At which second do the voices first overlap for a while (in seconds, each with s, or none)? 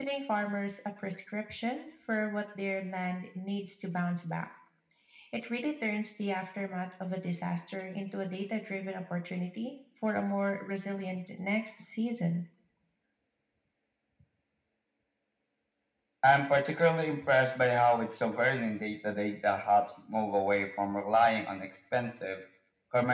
none